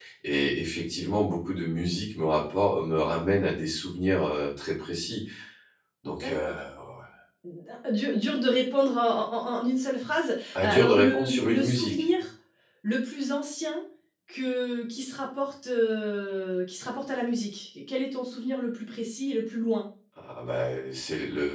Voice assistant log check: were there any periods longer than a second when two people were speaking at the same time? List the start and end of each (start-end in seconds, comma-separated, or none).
10.5-11.9